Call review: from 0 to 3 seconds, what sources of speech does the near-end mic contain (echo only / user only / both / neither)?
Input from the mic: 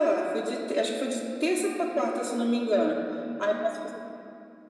echo only